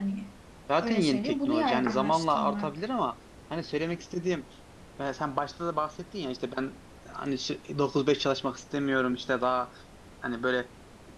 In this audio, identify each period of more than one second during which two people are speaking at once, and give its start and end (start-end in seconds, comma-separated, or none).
0.8-2.8